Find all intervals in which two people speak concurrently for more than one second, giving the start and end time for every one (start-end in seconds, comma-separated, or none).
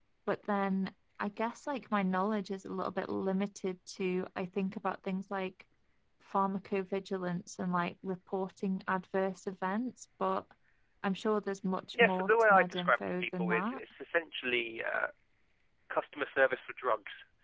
11.9-13.8